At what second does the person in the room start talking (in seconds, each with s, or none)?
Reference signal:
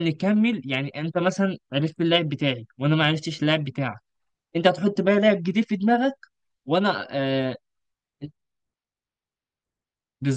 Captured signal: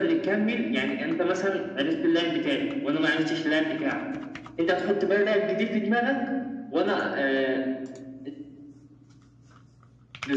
none